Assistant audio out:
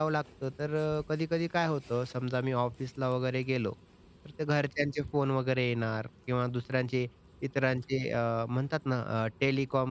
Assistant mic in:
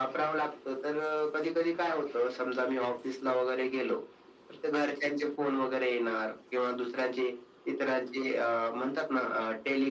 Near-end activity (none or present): none